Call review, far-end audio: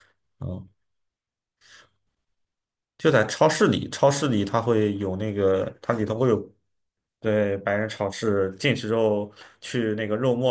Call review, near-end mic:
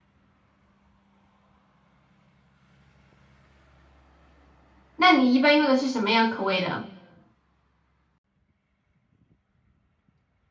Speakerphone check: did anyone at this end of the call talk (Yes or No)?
Yes